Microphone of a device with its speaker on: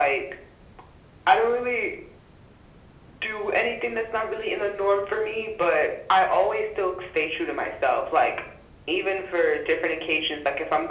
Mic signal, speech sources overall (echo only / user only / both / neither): echo only